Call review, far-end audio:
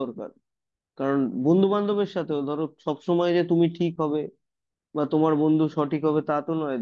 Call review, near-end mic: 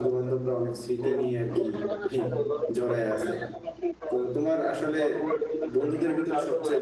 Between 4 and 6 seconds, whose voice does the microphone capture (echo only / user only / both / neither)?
both